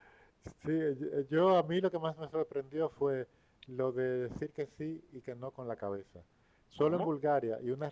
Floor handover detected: No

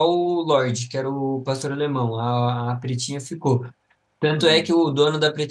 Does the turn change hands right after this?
No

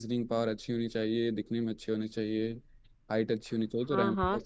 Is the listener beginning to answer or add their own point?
Yes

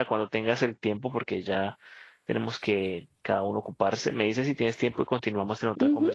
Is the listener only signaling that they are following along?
No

